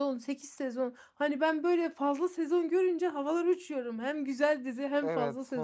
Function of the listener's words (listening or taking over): taking over